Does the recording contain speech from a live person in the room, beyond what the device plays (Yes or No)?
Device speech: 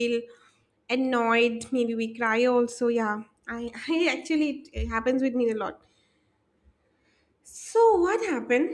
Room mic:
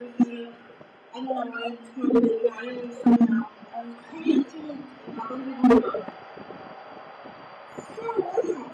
No